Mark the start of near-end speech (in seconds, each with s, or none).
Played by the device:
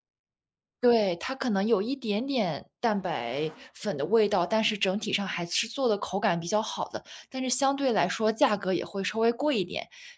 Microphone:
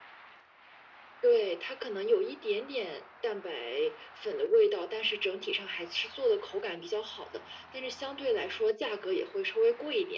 none